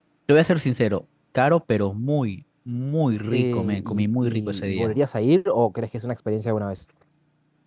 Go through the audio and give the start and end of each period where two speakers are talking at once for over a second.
3.3-4.9

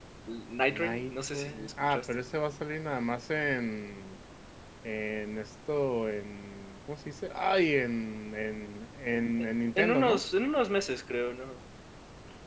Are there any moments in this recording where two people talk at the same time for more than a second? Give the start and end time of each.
0.7-2.1

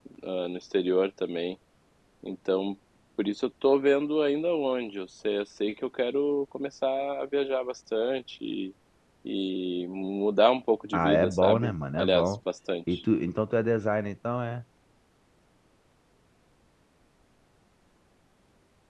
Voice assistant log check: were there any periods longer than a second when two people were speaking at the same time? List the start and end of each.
10.9-12.3

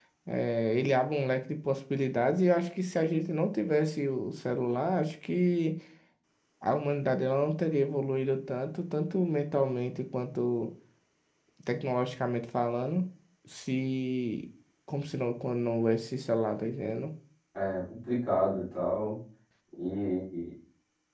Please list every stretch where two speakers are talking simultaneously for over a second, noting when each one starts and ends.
none

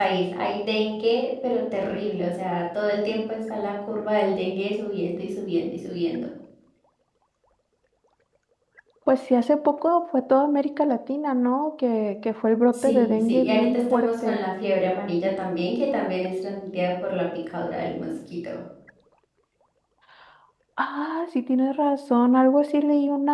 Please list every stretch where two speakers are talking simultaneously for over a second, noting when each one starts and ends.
12.7-14.4

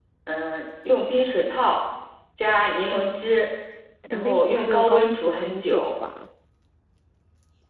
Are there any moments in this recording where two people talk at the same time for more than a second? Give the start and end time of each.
4.1-5.9

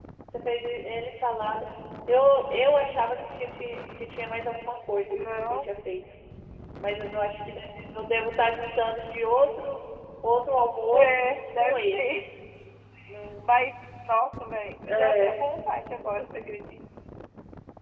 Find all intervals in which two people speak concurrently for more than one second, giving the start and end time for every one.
10.9-12.2

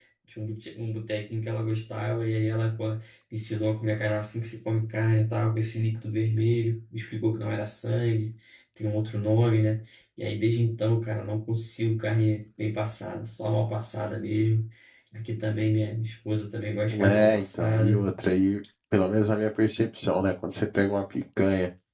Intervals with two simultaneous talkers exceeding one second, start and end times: 16.9-18.1

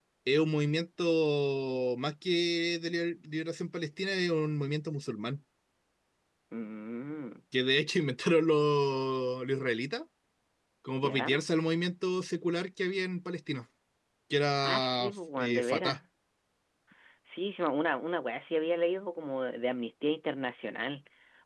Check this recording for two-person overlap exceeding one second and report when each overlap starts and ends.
14.6-16.0

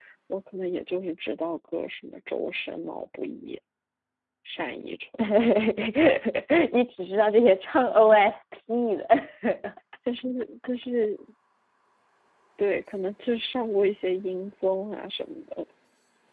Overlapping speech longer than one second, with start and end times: none

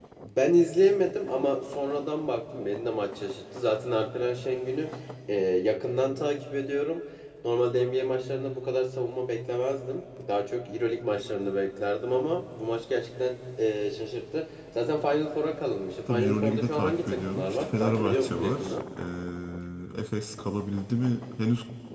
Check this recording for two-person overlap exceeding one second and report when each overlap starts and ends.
16.1-18.7

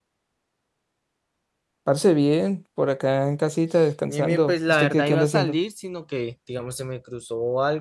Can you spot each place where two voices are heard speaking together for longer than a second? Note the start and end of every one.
4.1-5.6

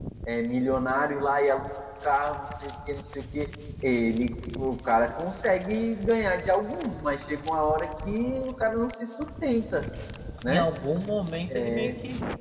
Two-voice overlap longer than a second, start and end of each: none

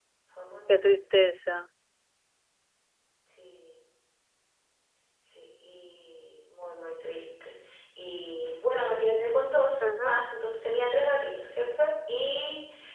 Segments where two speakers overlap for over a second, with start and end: none

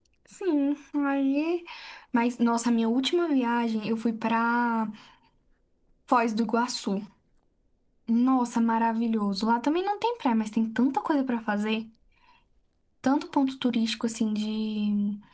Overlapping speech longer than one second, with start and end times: none

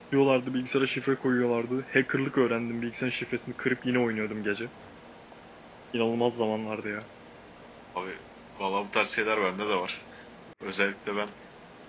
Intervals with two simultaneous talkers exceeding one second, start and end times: none

